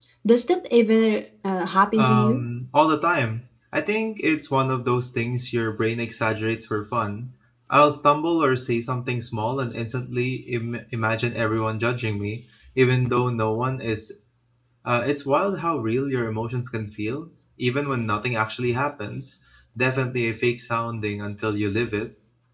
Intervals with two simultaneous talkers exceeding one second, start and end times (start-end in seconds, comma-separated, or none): none